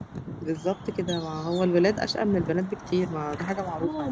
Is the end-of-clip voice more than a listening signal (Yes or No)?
Yes